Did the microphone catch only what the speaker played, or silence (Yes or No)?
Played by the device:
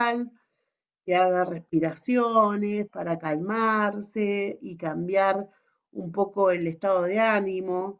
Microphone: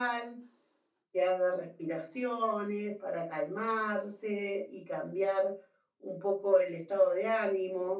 Yes